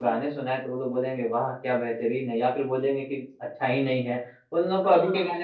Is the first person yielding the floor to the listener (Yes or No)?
No